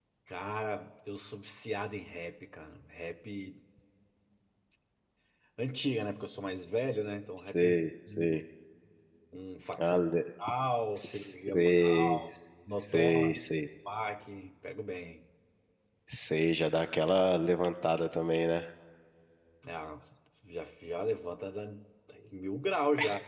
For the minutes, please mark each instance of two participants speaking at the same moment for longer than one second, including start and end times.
11.0-12.2

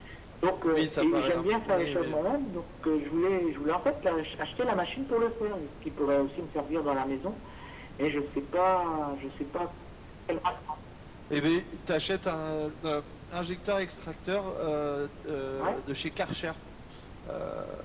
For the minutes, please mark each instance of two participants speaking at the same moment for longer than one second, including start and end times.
0.6-2.1

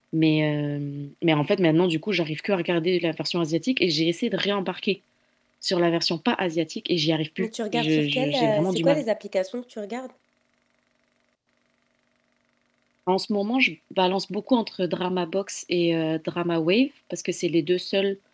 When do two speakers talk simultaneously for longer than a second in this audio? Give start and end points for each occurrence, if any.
7.4-9.0

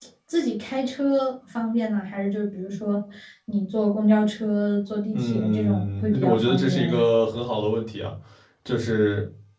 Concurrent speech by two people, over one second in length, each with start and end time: 5.1-7.0

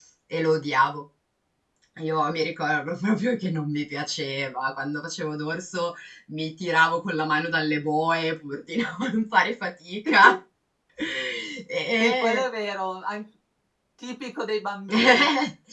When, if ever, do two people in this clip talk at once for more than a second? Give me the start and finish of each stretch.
none

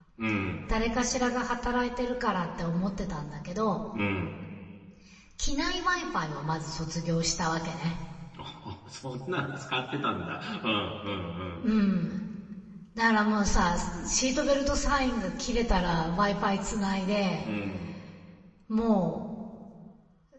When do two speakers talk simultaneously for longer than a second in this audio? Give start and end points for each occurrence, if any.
none

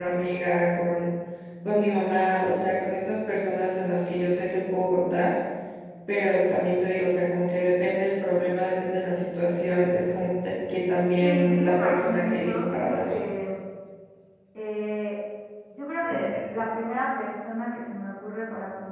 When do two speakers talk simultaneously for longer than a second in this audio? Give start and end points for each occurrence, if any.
11.2-13.1

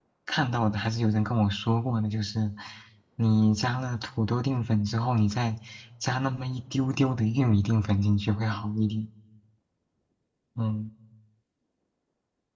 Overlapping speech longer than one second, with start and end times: none

